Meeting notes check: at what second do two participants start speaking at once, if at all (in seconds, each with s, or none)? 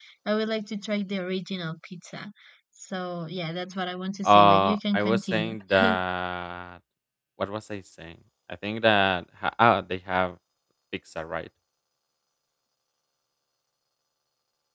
4.2 s